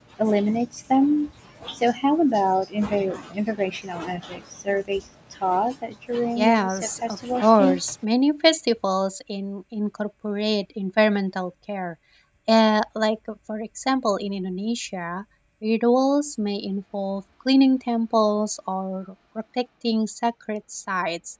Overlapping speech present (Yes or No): Yes